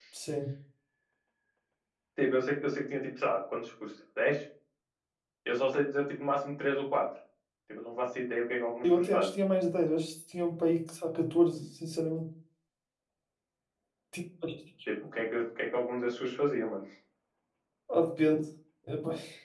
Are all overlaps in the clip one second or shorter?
Yes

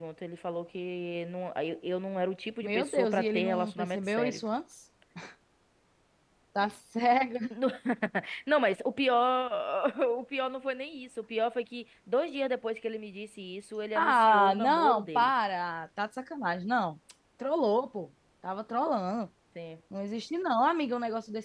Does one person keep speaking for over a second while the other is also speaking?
Yes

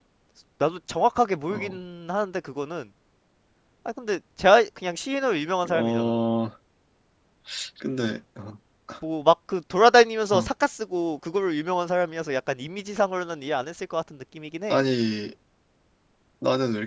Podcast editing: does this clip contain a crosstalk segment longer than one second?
No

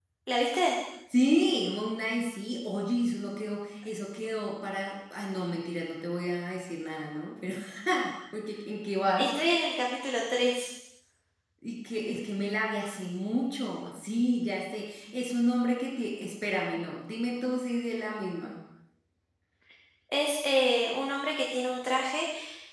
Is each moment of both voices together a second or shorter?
Yes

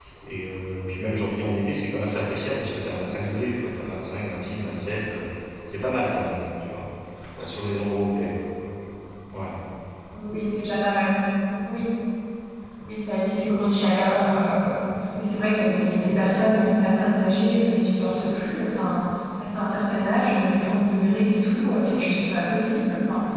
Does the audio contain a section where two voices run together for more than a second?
No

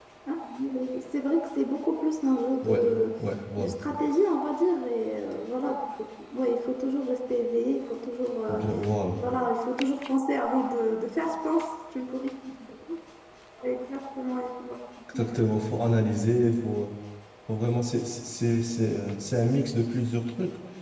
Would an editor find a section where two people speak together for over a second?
No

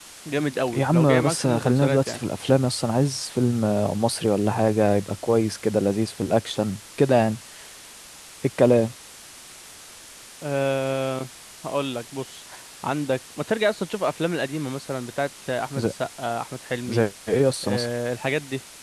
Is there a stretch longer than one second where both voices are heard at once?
Yes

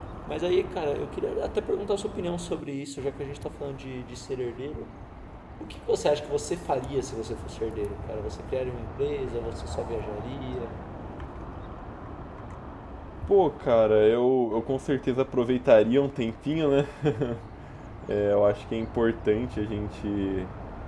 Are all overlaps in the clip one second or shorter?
Yes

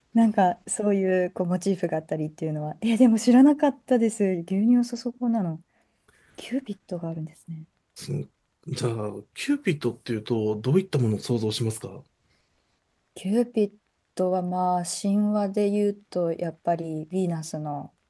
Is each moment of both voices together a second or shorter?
Yes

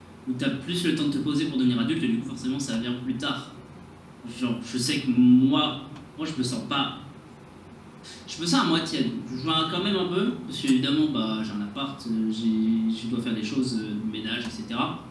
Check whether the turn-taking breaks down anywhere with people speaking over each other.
No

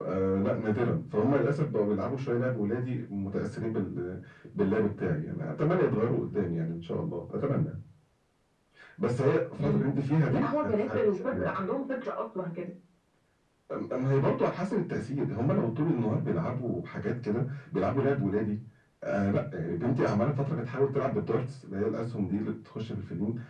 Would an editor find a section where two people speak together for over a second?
Yes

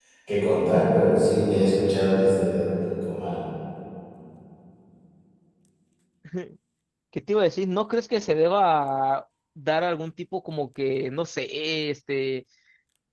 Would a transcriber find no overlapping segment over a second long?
Yes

